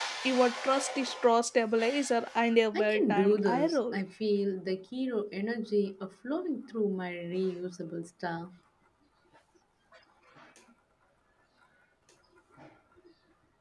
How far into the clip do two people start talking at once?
2.7 s

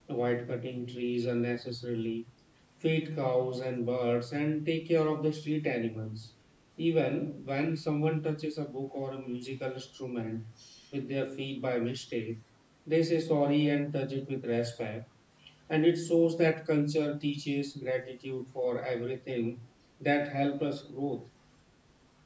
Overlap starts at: none

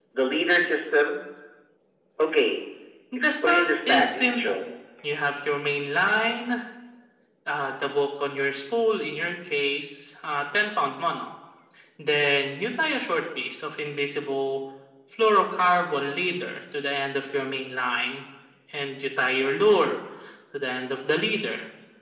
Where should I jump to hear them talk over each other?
3.2 s

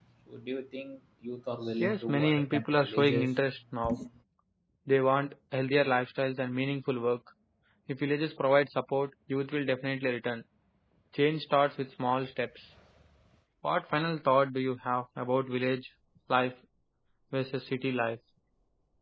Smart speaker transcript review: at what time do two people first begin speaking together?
1.8 s

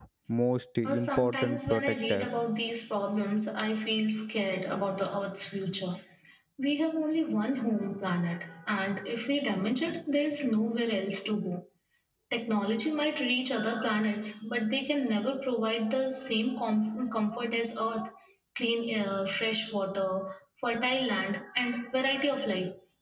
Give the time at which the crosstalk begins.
0.8 s

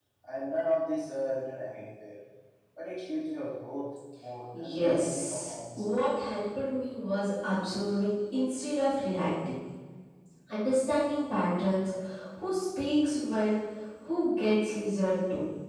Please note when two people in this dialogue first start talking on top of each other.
4.5 s

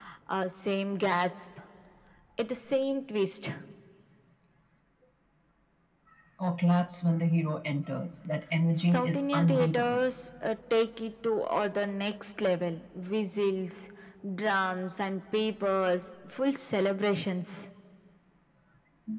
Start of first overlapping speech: 8.7 s

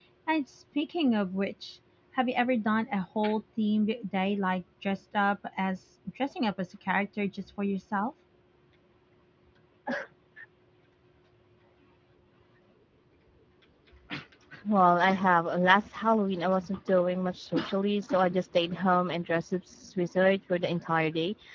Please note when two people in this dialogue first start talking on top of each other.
none

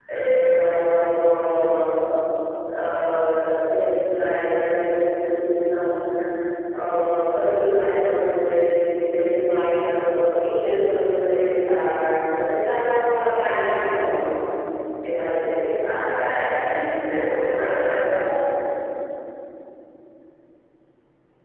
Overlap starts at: none

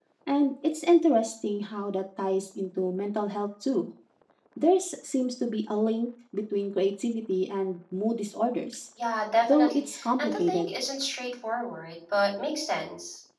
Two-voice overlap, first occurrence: 9.4 s

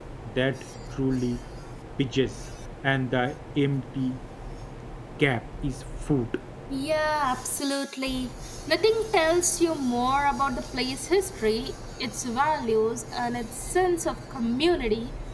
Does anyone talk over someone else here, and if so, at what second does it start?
none

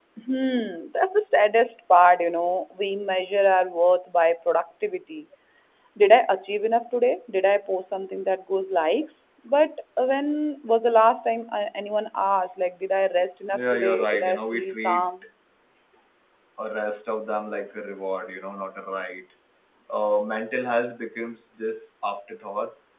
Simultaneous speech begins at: 13.5 s

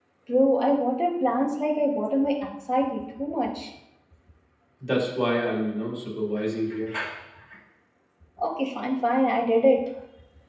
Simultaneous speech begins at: none

